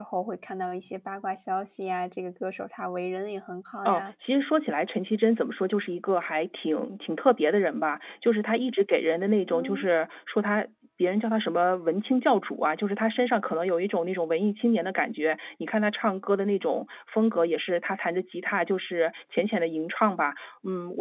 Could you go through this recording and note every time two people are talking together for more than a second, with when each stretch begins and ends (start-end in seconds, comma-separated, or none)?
none